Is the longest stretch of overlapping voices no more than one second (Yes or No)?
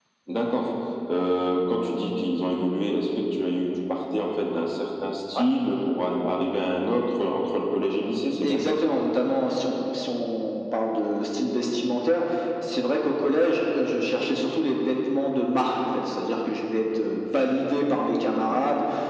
Yes